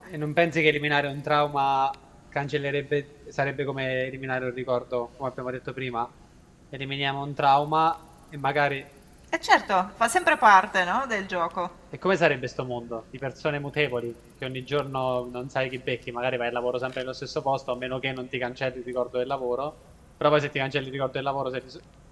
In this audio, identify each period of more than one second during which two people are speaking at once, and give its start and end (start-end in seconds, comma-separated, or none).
none